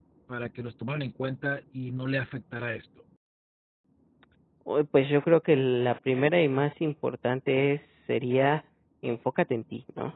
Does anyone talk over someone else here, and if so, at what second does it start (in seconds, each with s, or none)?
none